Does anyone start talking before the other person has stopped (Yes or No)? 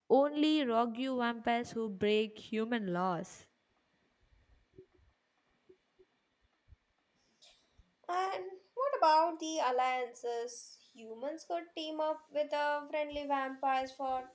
No